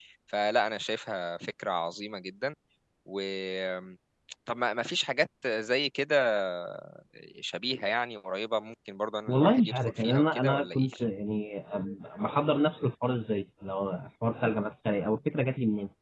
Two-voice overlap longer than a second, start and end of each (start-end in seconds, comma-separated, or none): 9.3-10.9